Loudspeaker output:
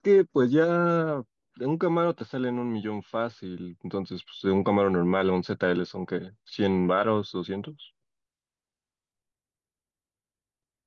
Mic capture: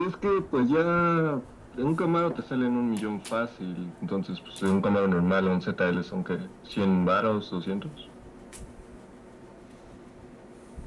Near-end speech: none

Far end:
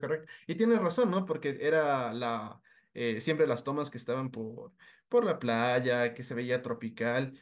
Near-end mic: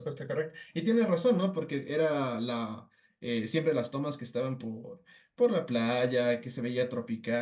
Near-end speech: none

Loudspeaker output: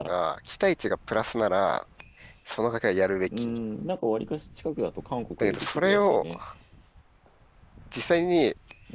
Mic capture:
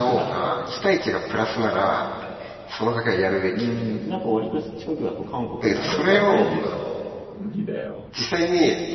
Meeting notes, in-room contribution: present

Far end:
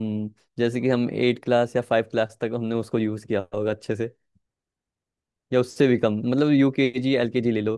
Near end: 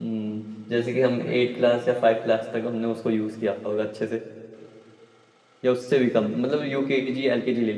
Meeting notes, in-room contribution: none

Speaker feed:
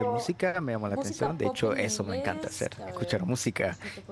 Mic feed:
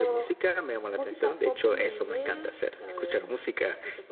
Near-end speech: none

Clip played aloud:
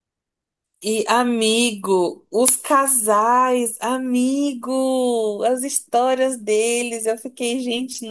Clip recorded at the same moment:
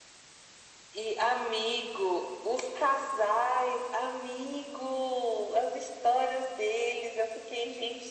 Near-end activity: none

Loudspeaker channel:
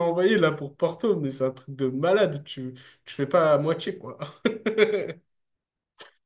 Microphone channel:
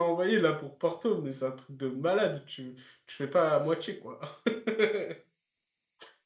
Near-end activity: none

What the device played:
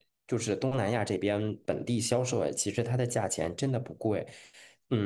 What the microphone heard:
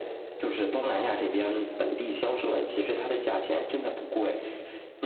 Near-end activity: none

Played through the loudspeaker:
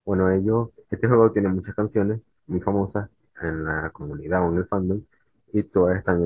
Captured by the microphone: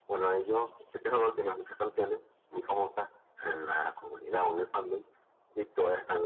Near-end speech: none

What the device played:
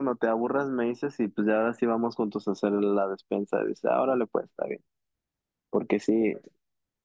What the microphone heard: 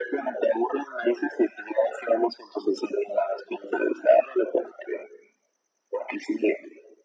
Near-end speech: none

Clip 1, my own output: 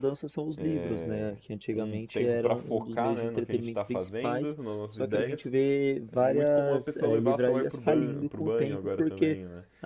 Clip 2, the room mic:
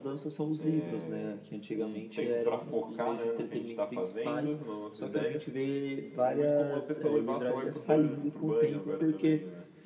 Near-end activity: none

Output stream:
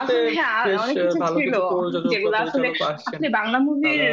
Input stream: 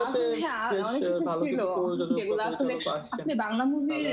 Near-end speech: none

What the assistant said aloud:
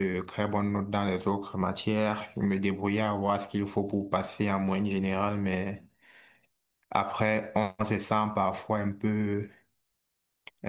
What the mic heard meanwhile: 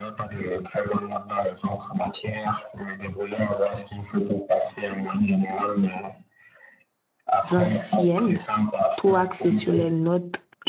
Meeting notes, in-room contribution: present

